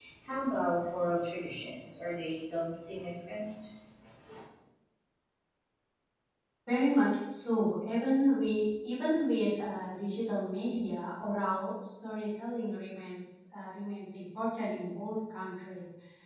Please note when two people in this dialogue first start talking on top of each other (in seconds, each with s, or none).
none